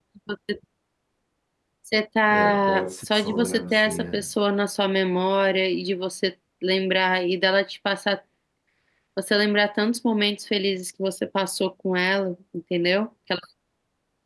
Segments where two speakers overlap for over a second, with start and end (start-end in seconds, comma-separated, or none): 2.3-4.3